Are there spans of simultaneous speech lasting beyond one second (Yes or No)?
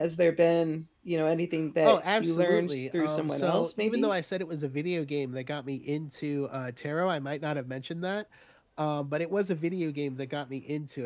Yes